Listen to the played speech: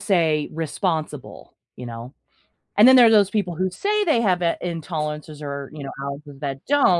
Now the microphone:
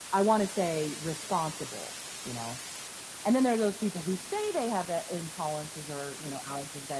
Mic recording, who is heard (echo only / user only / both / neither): echo only